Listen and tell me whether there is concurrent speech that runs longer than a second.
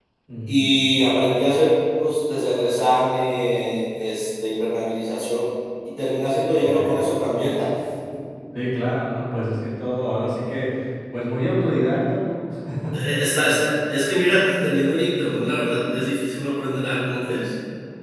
No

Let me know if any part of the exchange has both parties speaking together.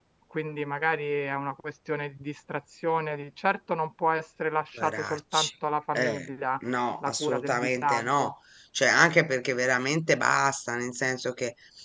Yes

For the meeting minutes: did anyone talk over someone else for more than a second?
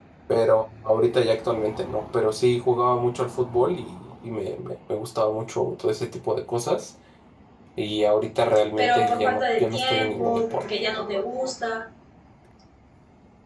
Yes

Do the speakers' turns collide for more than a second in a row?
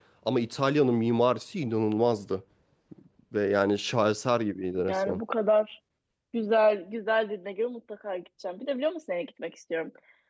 No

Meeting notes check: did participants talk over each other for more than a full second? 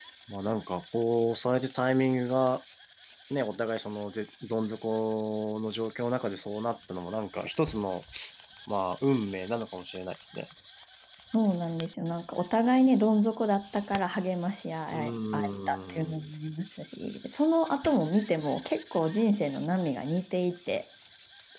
Yes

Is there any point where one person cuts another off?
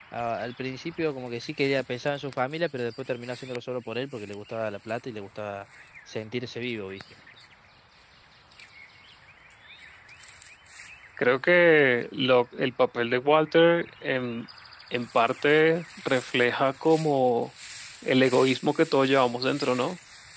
No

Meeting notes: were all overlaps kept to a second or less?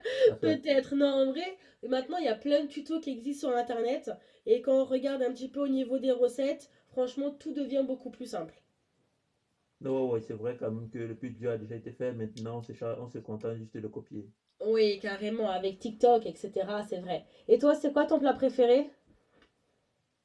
Yes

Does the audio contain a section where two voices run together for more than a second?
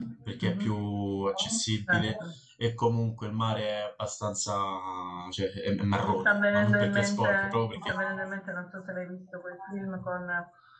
Yes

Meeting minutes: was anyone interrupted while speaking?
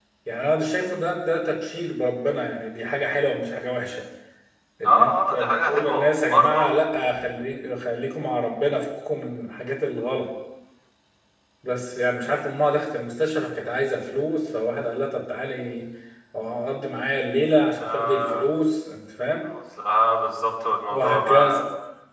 Yes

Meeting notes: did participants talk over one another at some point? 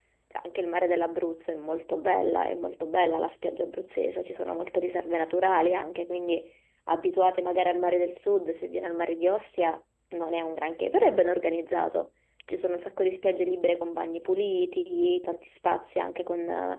No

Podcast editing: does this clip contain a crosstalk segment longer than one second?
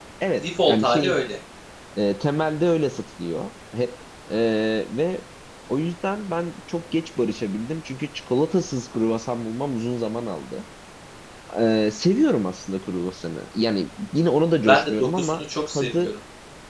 Yes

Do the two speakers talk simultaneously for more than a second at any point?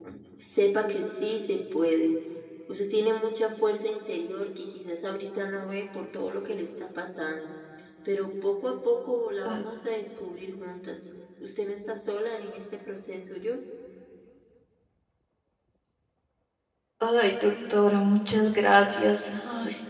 No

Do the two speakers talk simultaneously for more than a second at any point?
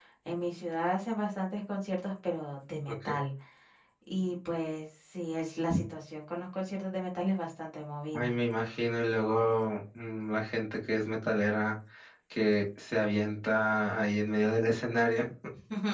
No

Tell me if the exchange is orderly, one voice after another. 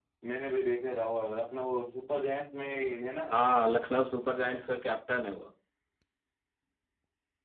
Yes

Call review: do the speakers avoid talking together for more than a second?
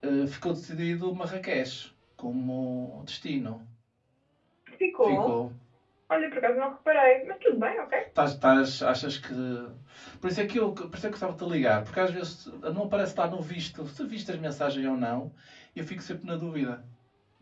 Yes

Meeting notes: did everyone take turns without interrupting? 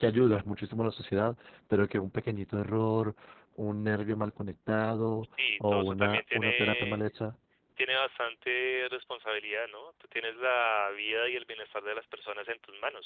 No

